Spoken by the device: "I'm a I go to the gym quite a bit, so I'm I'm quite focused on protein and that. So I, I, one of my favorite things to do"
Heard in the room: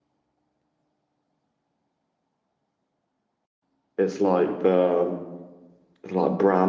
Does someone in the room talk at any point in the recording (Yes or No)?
Yes